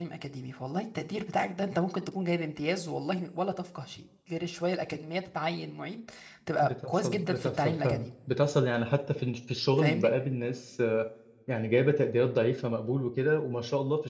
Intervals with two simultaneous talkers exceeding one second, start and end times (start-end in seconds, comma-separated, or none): 6.6-8.1